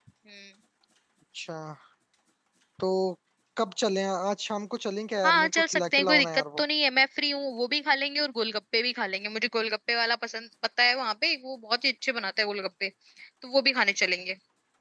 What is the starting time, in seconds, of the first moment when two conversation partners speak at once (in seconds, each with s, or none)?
5.2 s